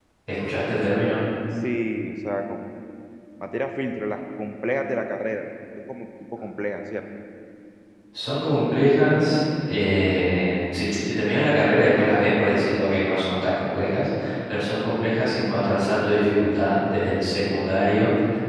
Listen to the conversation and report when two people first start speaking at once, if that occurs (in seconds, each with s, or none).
none